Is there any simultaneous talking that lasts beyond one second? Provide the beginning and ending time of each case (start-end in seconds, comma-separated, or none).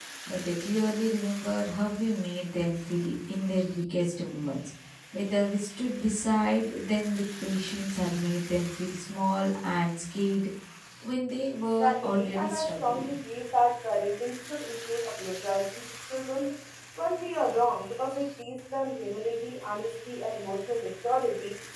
11.8-13.1